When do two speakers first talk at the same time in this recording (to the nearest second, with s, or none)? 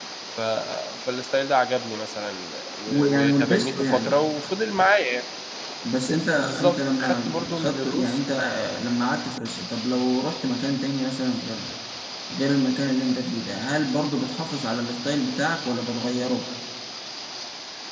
3 s